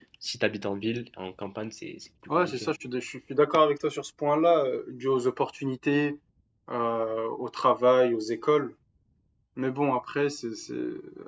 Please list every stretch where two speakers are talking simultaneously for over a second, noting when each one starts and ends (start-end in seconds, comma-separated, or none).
none